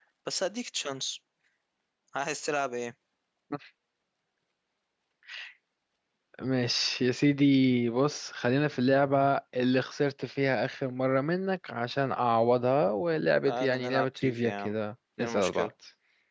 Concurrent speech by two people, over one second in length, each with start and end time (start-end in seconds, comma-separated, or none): 13.5-14.8